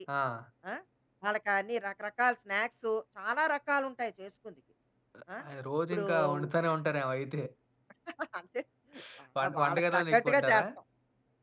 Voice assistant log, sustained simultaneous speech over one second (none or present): present